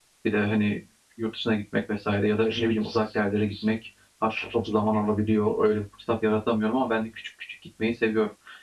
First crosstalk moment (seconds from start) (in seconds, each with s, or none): none